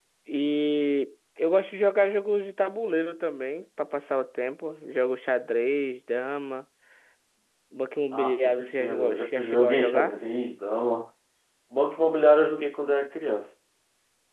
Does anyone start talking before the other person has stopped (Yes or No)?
Yes